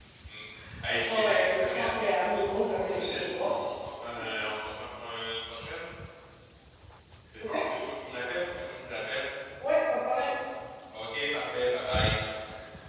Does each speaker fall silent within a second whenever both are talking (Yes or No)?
No